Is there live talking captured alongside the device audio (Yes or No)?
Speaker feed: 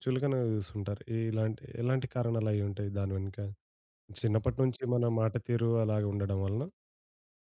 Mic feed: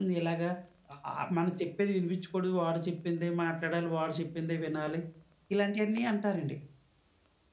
Yes